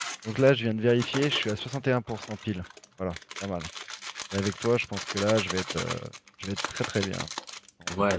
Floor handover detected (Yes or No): Yes